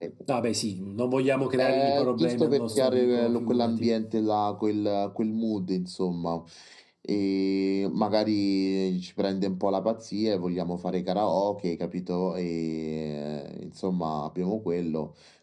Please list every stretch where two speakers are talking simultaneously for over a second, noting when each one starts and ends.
1.6-3.9

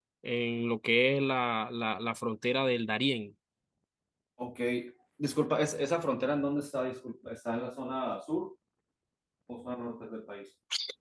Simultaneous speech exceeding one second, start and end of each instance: none

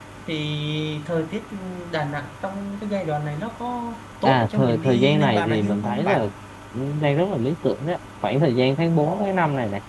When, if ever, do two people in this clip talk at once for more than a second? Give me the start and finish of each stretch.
4.2-6.2

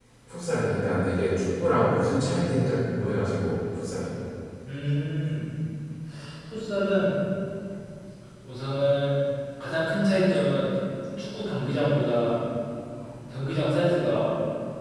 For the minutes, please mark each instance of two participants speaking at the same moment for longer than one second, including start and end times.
none

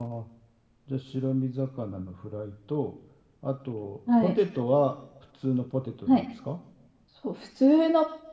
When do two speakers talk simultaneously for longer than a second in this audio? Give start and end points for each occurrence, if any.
none

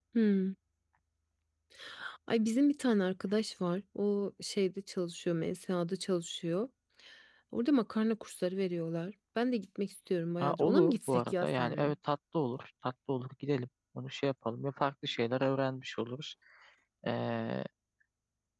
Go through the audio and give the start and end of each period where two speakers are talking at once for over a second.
10.4-11.9

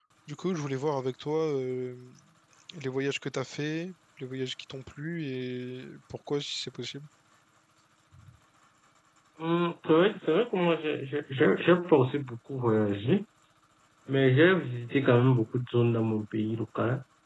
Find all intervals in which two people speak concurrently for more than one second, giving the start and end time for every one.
none

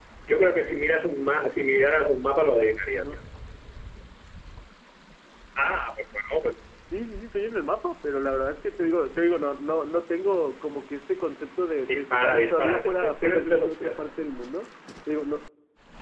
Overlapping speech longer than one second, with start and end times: 11.9-14.1

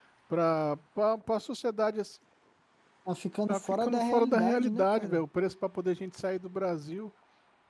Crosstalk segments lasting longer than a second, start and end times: 3.5-5.2

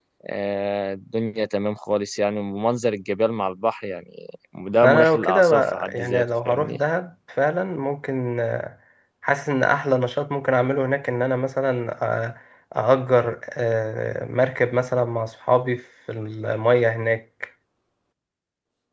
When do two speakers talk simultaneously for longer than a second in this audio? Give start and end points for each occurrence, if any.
4.8-6.8

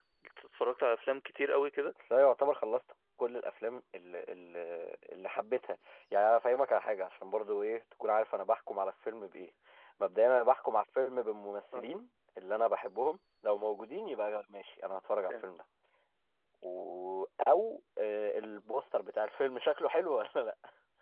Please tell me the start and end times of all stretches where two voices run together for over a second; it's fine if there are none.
none

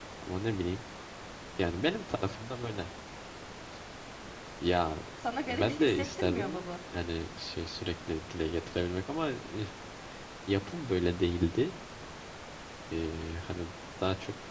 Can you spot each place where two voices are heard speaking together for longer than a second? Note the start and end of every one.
5.4-6.7

